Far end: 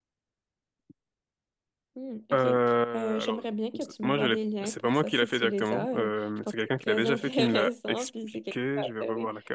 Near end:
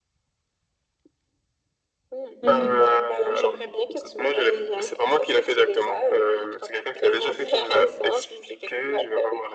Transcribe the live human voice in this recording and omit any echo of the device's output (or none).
Mhm.